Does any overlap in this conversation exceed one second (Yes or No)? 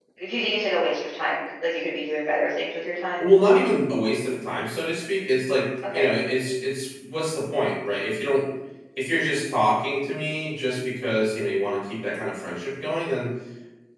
No